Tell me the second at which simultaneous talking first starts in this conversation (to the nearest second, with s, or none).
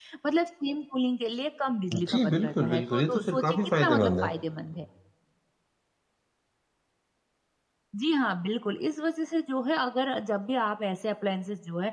2 s